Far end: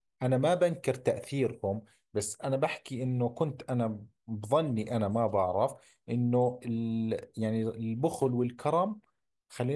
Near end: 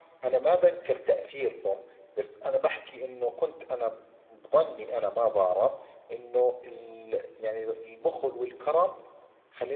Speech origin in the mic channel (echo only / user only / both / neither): echo only